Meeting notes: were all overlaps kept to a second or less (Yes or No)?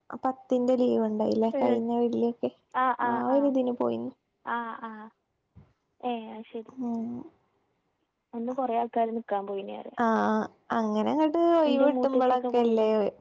No